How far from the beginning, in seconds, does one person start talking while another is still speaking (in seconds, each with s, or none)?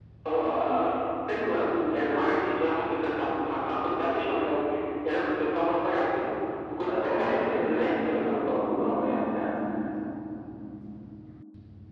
6.8 s